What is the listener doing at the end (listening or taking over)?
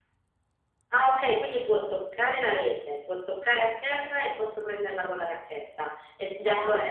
taking over